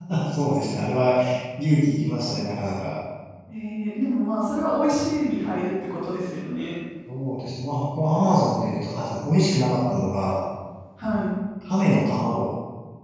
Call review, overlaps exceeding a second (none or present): none